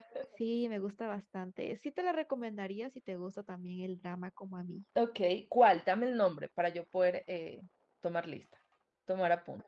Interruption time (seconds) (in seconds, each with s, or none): none